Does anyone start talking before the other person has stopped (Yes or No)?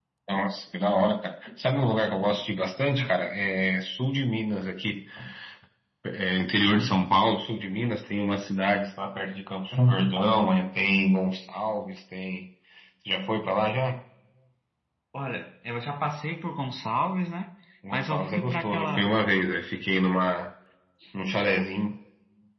Yes